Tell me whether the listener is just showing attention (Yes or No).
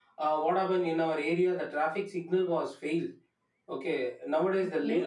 Yes